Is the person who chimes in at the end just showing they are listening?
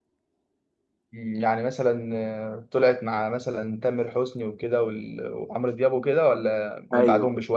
No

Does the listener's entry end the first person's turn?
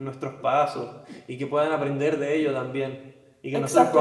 Yes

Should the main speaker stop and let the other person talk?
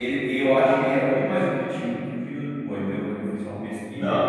Yes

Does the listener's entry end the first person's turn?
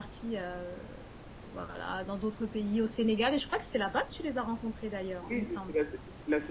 Yes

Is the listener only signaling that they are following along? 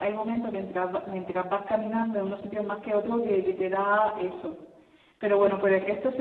Yes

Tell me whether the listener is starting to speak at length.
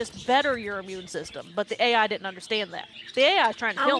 Yes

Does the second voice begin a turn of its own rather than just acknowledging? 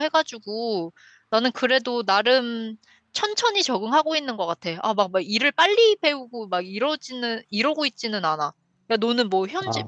No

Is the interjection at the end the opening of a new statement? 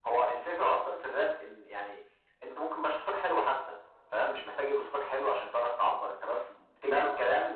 No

